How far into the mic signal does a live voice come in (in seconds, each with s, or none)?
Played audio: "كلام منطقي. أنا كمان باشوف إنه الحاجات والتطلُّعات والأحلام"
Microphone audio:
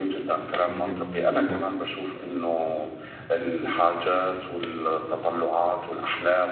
0.7 s